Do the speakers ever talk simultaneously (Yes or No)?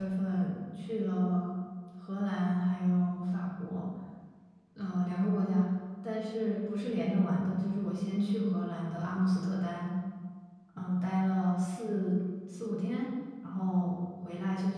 No